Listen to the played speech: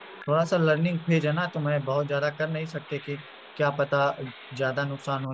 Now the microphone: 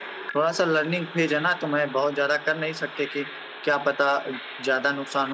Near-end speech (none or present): none